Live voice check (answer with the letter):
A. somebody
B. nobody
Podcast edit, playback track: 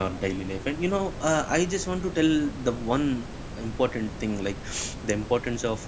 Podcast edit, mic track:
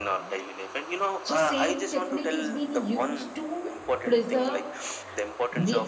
A